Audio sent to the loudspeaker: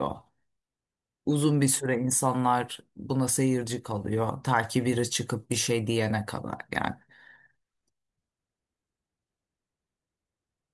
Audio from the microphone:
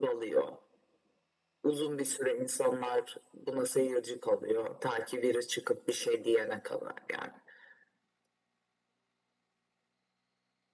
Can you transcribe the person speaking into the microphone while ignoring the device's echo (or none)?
none